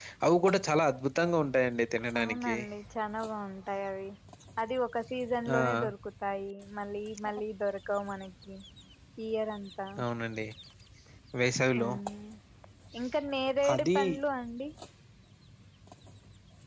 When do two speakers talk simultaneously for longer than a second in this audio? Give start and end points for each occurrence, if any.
none

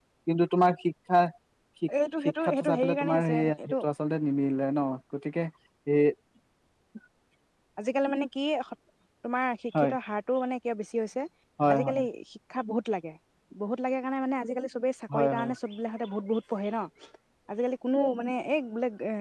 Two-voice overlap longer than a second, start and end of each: 2.4-3.7

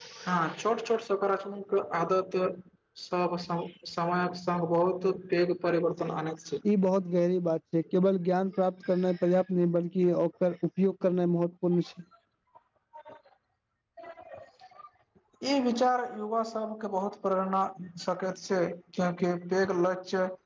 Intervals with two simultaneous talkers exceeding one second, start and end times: none

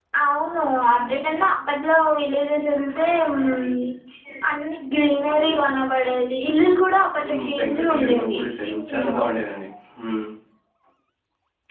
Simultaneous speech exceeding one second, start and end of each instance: 7.2-9.2

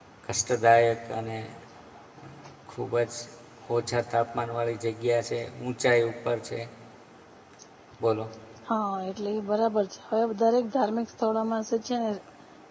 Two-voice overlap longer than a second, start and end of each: none

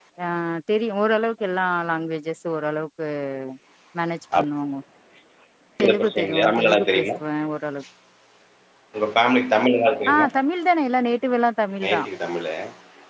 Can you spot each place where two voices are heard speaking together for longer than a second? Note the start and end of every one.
5.8-7.1

